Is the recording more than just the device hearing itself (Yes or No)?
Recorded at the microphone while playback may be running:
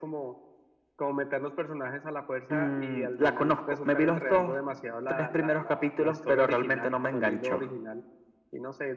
No